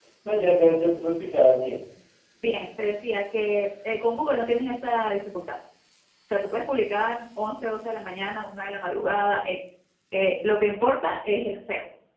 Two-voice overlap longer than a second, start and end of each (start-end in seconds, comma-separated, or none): none